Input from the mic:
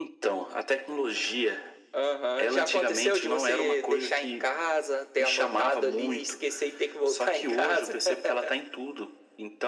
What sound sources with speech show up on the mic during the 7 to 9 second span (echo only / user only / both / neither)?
echo only